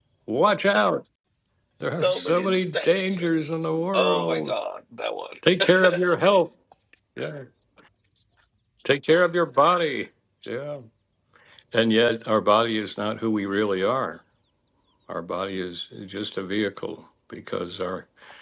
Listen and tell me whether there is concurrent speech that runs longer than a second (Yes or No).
Yes